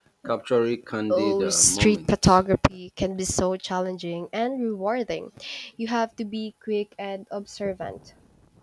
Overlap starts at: 1.1 s

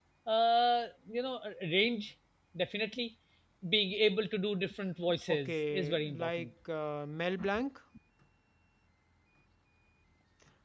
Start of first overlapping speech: 5.3 s

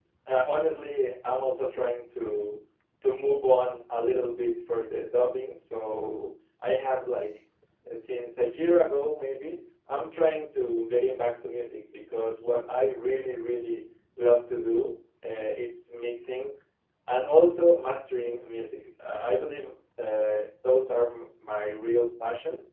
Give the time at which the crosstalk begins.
none

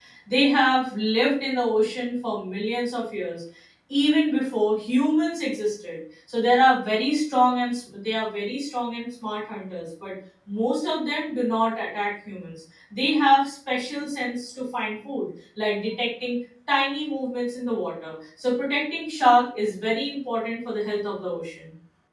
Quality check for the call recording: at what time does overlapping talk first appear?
none

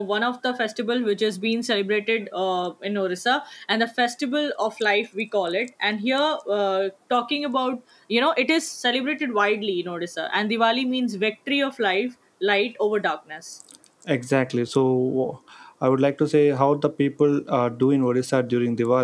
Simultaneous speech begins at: none

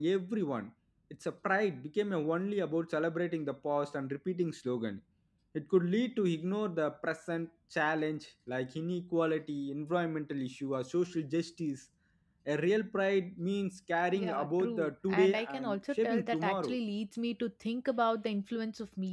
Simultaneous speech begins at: 14.1 s

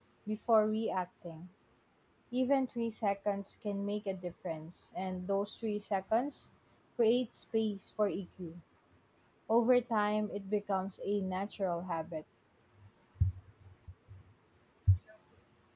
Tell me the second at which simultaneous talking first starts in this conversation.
none

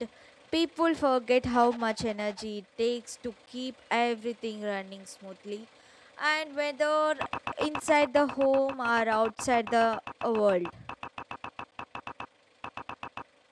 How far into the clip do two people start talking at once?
none

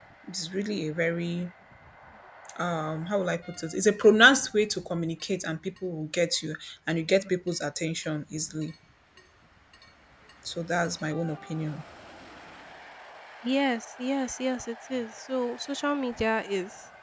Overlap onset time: none

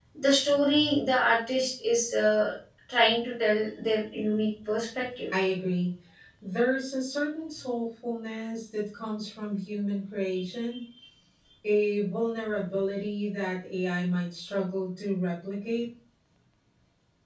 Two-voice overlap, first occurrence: none

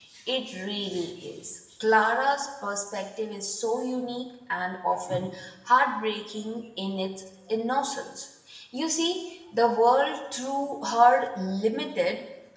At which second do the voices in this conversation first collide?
none

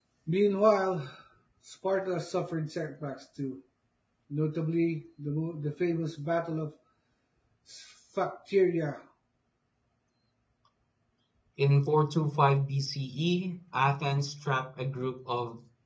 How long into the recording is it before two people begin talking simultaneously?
none

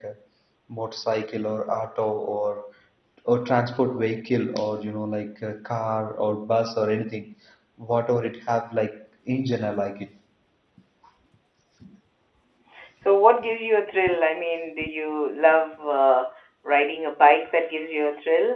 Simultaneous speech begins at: none

